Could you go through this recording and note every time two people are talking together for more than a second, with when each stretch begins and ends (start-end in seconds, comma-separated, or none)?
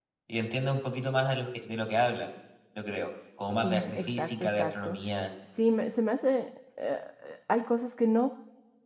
3.6-5.0